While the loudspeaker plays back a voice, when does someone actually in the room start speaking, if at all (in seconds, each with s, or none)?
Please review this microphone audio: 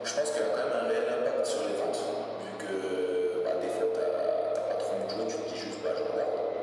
none